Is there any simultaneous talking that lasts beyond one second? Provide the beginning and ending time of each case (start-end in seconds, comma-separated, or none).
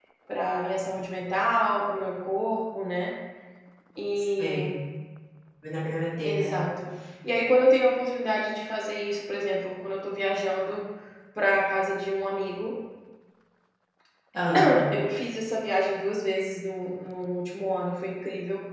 none